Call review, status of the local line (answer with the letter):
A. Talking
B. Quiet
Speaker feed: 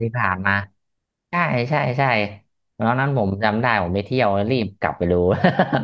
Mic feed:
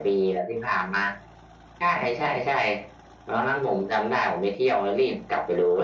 B